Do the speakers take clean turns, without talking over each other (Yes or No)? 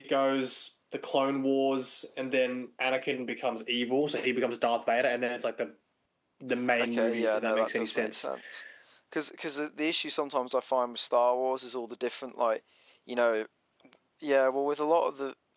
No